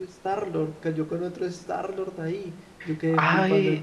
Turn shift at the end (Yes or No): Yes